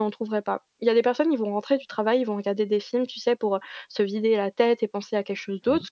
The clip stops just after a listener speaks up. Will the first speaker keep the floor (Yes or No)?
Yes